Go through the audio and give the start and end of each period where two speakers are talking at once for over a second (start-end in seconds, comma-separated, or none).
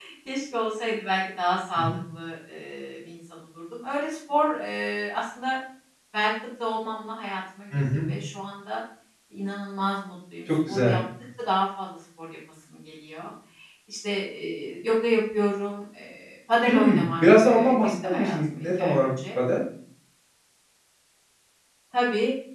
16.7-19.1